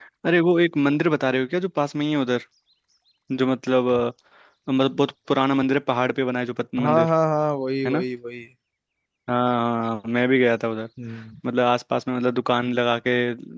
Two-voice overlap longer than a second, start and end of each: none

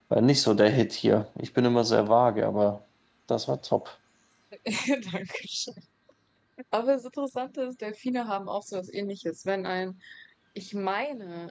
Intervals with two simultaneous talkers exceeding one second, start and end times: none

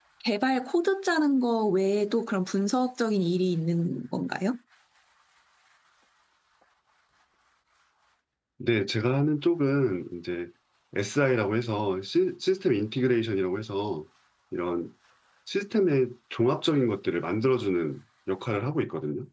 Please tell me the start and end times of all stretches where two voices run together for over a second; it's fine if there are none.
none

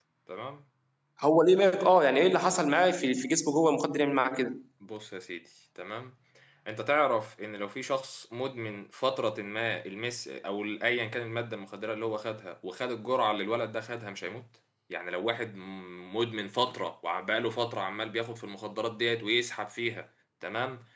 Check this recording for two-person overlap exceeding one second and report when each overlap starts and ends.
none

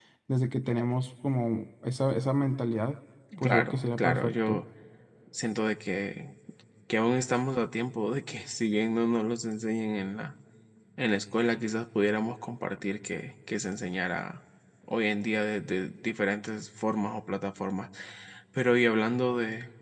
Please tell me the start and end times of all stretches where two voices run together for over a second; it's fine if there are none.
3.4-4.6

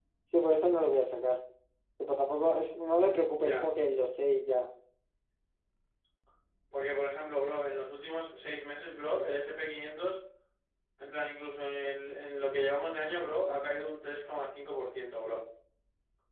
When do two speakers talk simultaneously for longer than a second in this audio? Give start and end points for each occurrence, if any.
none

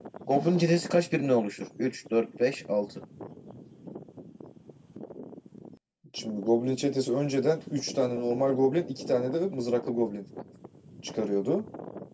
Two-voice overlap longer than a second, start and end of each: none

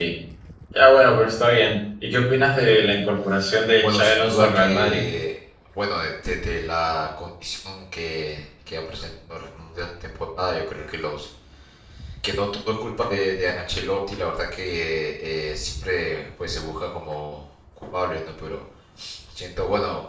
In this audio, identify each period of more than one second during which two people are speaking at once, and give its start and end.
3.8-5.0

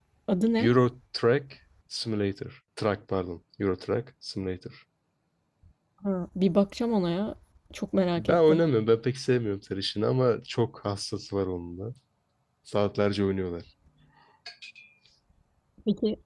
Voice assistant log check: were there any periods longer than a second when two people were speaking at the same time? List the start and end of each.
none

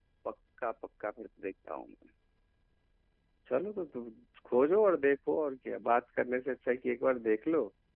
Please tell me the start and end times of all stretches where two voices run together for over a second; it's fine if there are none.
none

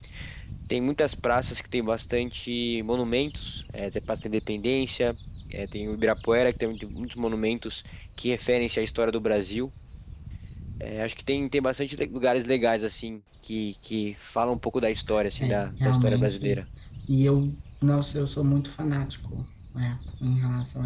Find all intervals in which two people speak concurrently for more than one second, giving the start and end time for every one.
15.4-16.6

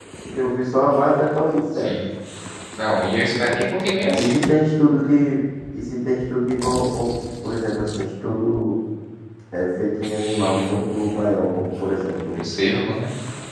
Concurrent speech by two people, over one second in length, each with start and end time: none

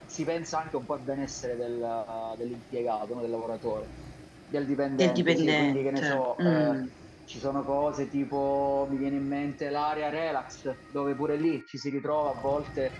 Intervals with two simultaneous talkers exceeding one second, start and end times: 5.0-6.8

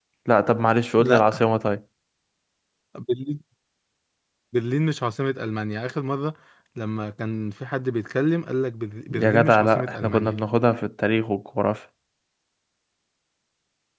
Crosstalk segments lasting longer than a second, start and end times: 9.1-10.4

